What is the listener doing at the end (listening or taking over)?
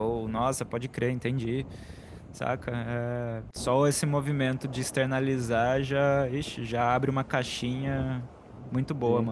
taking over